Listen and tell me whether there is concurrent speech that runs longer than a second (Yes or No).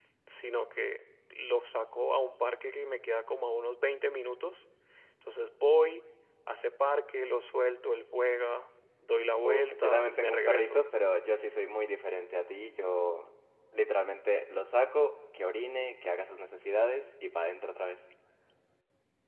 Yes